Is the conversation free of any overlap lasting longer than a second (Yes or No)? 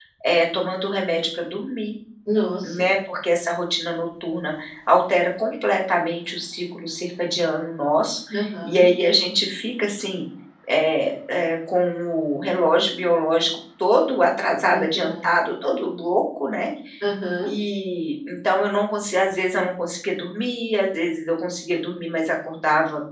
Yes